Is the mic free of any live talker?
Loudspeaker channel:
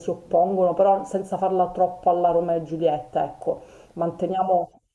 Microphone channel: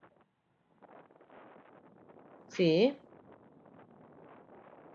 No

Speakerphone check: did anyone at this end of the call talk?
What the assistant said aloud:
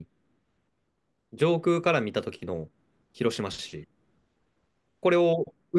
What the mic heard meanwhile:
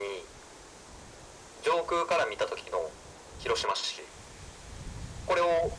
No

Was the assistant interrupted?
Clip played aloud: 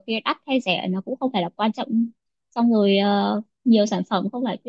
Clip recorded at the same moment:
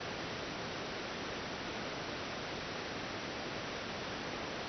No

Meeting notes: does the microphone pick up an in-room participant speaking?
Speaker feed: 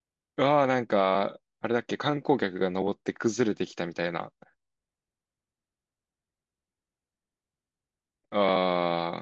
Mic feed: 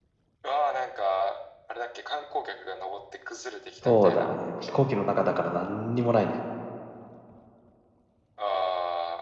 Yes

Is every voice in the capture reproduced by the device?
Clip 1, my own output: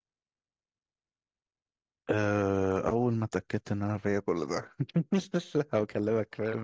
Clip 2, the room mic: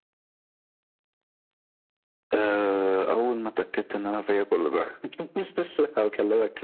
Yes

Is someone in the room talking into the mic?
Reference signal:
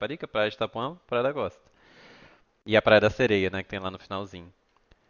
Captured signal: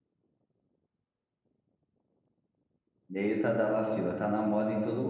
Yes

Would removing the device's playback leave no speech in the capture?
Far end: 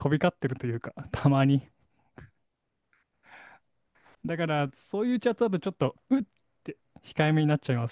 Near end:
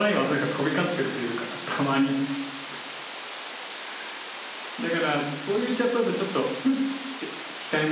Yes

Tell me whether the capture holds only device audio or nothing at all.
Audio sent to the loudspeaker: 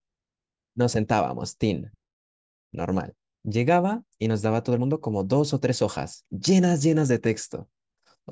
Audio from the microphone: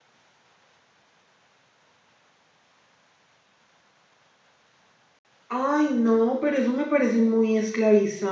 No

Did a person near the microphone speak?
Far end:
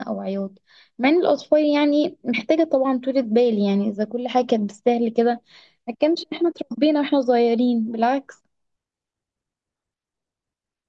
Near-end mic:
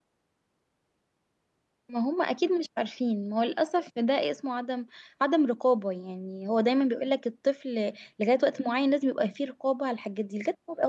Yes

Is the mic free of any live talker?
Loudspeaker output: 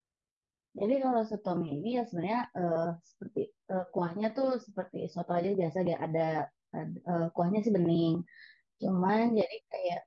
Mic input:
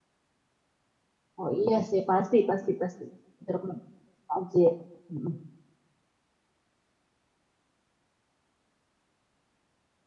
No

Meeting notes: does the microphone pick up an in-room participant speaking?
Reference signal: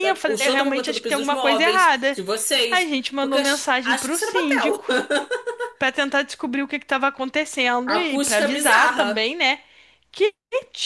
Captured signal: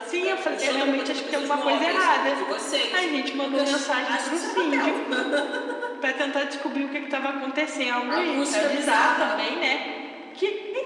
No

